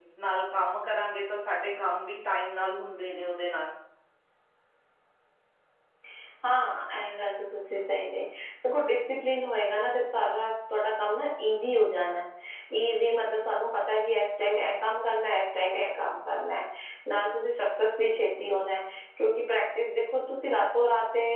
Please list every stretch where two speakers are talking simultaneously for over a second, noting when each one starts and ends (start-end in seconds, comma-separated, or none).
none